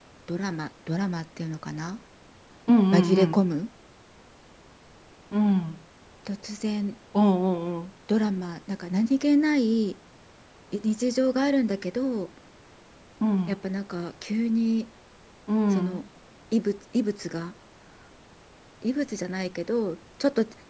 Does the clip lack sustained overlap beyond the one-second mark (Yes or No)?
Yes